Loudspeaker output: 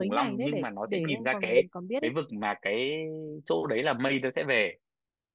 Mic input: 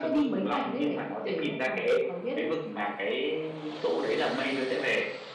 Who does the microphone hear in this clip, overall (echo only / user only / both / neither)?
echo only